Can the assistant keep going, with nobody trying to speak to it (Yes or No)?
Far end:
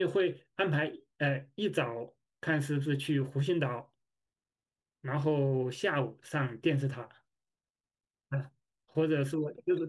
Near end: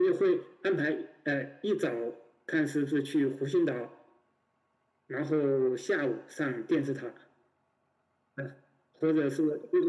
Yes